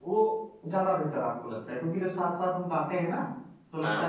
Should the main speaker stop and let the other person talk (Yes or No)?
No